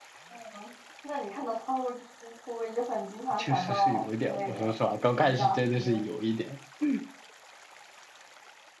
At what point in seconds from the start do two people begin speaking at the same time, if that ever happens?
3.4 s

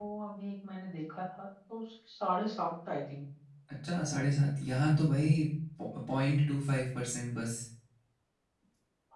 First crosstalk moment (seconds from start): none

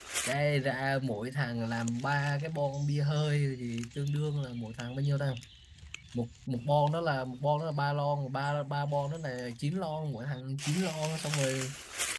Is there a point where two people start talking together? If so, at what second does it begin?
none

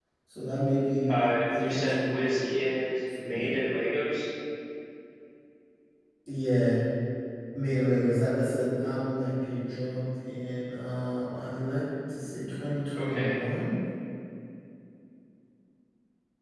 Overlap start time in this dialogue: 1.1 s

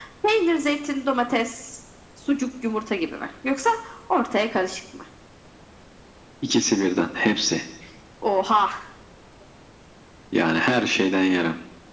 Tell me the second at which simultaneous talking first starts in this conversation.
none

